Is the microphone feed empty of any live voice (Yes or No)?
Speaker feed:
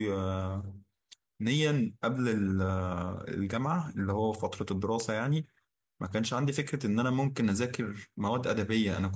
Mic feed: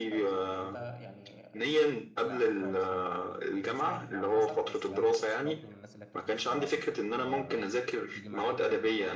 No